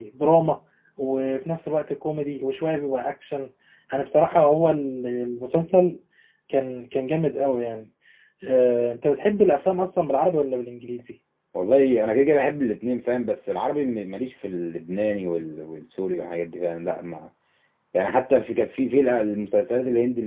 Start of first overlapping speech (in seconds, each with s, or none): none